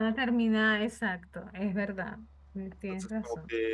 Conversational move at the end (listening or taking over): taking over